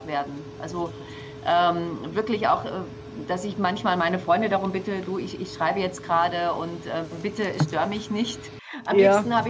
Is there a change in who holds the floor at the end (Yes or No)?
No